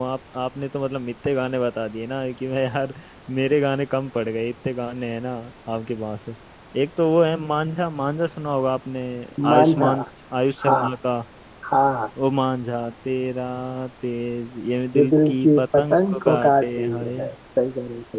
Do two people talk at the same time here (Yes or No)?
Yes